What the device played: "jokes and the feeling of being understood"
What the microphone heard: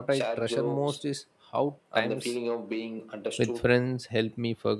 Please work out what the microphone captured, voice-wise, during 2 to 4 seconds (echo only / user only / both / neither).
both